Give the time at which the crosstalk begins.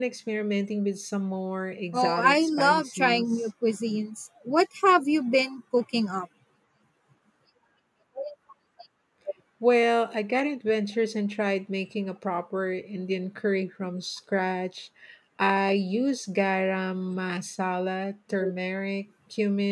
1.9 s

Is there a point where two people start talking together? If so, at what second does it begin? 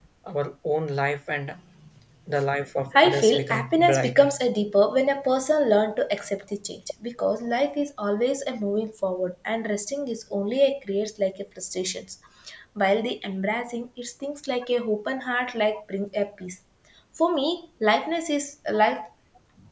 2.9 s

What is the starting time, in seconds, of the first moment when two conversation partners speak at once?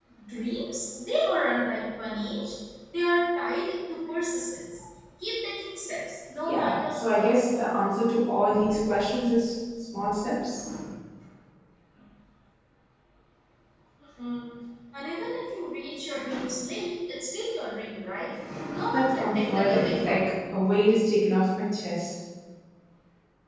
6.4 s

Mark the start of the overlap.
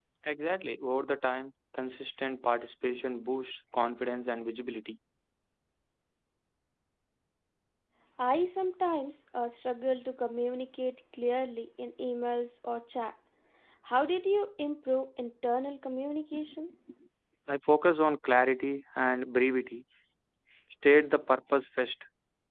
none

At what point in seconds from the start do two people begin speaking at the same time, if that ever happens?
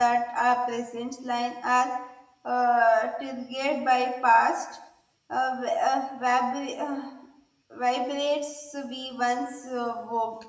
none

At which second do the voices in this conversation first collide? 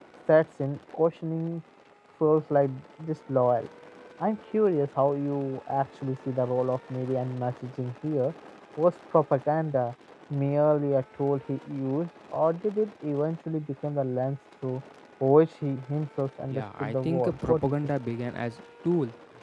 16.5 s

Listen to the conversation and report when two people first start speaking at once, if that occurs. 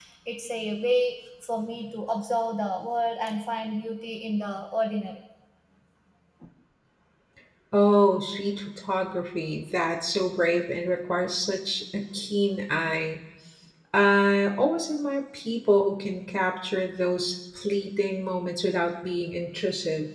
none

